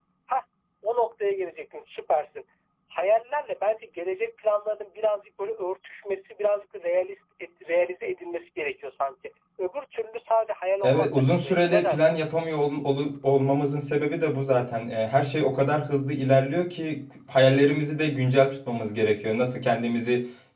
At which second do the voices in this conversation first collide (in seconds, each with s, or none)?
10.8 s